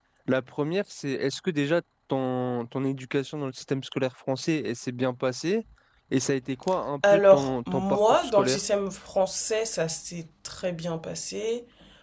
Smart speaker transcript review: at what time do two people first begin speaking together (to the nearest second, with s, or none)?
7 s